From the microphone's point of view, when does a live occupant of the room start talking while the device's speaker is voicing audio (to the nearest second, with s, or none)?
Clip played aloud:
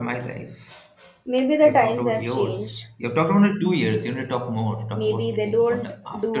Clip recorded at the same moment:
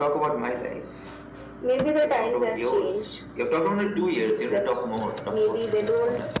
4 s